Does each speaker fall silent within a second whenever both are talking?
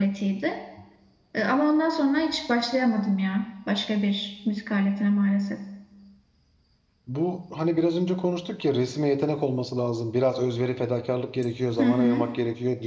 Yes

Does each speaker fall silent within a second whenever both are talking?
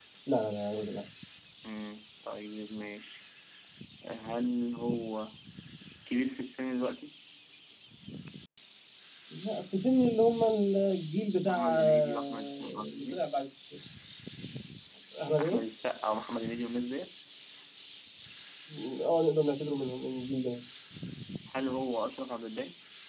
No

